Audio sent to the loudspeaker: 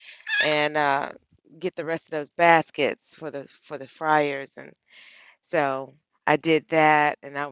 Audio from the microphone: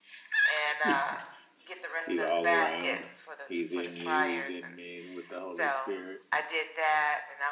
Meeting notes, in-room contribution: present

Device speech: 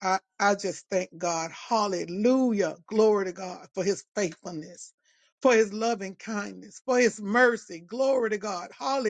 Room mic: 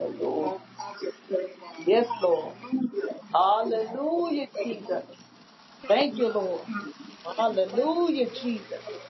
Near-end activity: present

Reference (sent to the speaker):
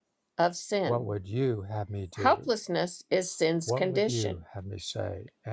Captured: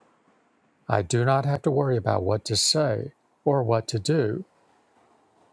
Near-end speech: present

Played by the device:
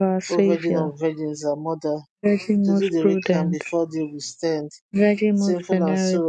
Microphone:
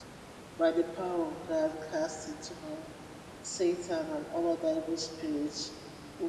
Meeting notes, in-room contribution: present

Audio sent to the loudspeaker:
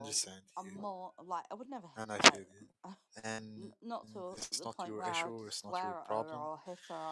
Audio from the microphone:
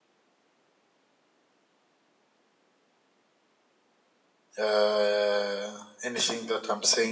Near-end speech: present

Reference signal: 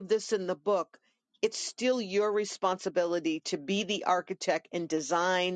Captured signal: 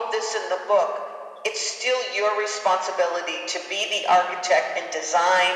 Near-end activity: none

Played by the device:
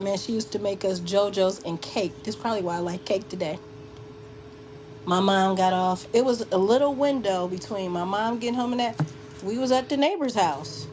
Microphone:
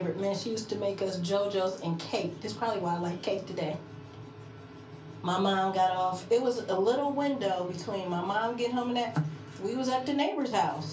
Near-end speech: none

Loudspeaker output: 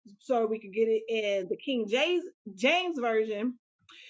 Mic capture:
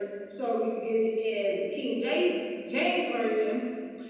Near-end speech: none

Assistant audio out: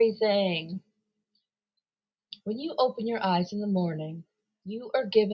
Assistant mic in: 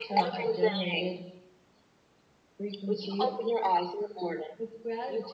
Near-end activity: present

